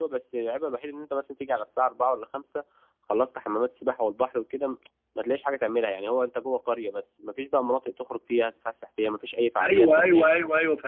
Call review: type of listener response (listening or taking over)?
taking over